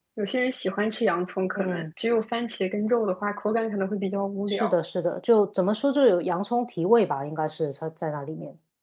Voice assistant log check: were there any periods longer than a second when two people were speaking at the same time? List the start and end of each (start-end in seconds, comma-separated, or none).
none